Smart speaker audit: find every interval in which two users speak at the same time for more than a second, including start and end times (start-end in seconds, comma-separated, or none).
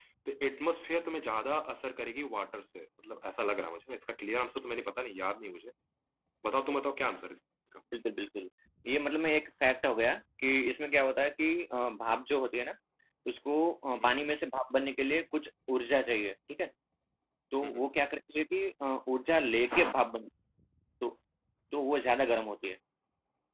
none